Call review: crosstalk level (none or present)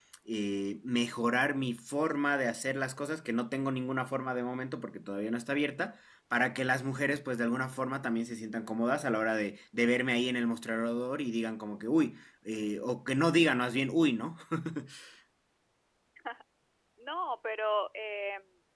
none